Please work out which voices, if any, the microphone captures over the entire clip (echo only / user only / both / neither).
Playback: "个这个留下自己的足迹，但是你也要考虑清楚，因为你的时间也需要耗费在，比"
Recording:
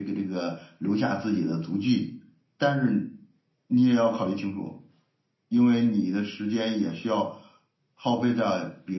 echo only